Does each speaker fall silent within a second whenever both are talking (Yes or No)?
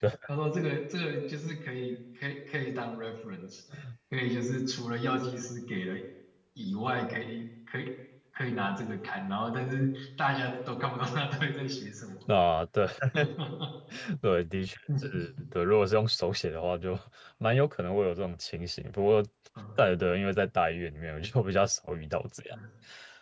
Yes